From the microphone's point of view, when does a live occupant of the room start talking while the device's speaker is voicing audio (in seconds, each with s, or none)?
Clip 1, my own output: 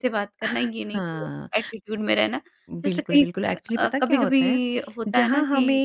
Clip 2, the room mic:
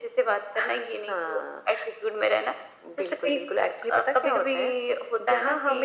none